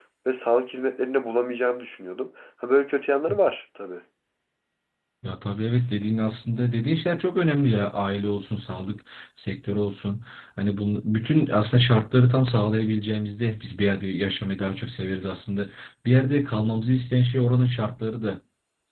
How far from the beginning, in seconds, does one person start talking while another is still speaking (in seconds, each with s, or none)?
none